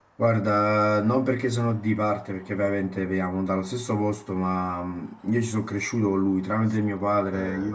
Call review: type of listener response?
listening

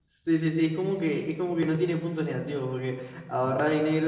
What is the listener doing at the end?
listening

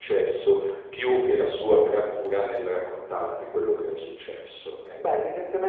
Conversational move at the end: taking over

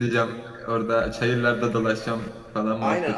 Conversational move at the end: taking over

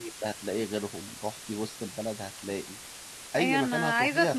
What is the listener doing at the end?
taking over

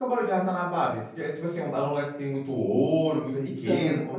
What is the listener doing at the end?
taking over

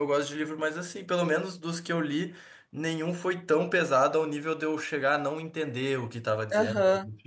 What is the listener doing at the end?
taking over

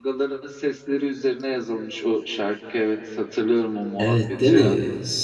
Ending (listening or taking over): taking over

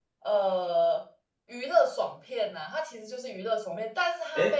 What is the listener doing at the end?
listening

